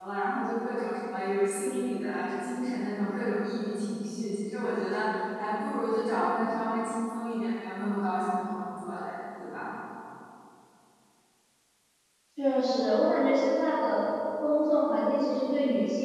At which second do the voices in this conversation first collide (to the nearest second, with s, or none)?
none